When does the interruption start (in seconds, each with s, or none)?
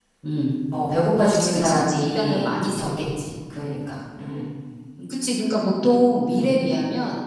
1.3 s